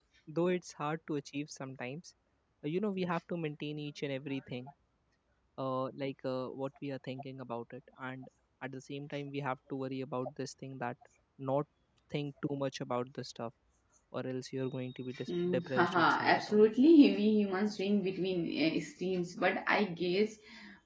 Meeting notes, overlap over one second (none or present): present